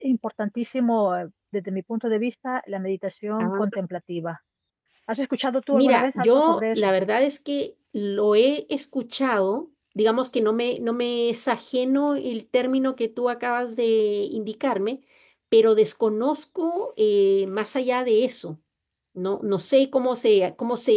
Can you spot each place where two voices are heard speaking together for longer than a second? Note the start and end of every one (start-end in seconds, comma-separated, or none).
5.7-6.9